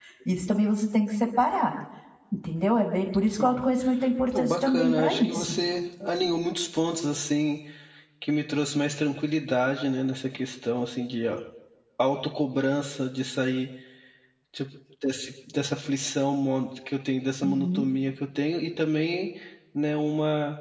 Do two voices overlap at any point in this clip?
Yes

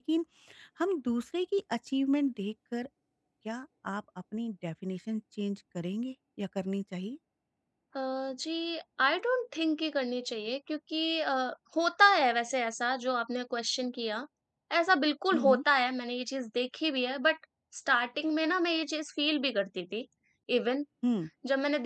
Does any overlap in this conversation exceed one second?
No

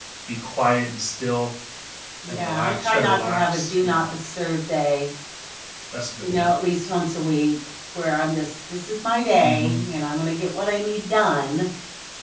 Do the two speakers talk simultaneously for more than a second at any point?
Yes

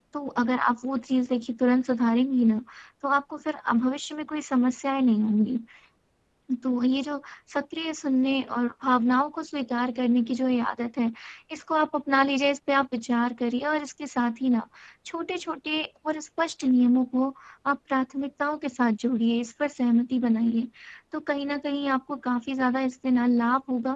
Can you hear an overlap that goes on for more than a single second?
No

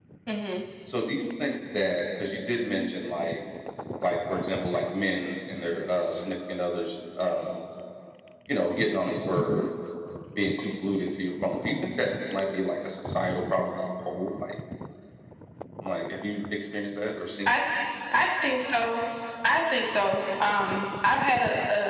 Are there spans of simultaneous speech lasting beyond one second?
No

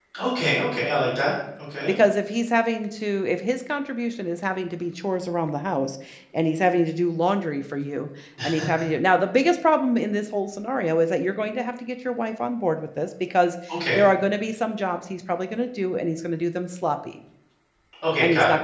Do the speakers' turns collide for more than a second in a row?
No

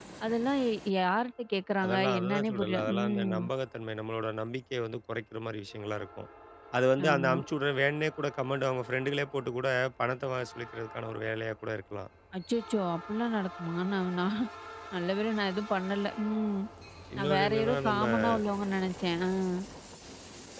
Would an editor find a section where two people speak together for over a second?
Yes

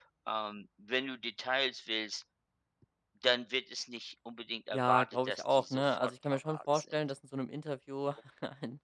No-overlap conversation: No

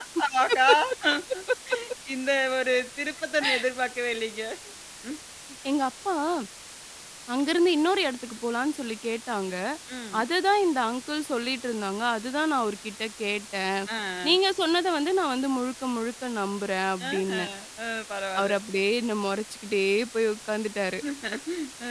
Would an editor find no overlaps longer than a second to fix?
Yes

